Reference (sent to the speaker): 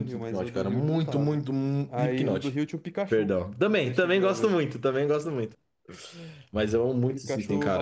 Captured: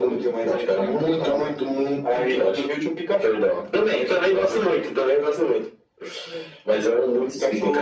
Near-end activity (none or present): none